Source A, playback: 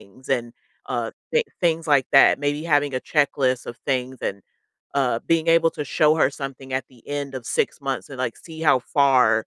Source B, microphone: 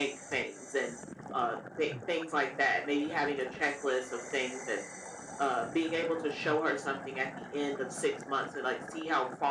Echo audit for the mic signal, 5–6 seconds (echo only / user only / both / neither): echo only